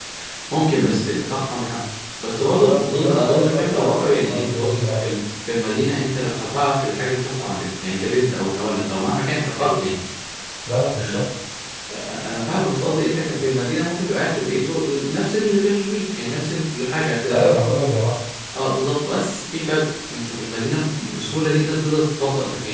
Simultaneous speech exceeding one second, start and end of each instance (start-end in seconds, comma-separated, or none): 2.5-5.0